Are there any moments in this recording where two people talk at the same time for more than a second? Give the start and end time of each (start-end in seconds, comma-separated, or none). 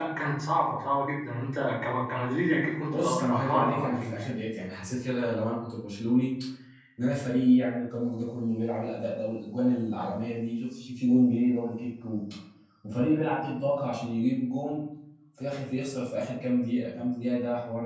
2.9-4.2